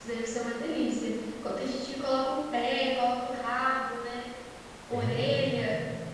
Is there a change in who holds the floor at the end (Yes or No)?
Yes